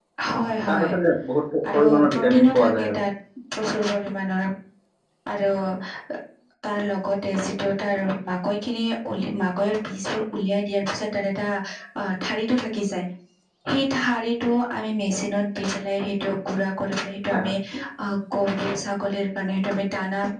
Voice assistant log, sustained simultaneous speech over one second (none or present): present